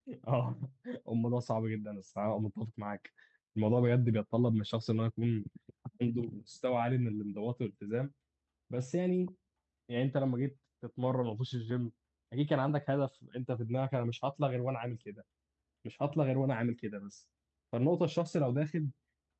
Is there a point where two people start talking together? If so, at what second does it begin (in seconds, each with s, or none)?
none